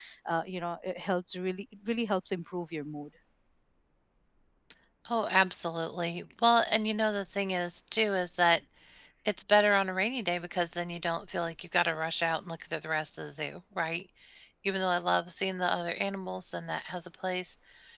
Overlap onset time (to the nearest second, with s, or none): none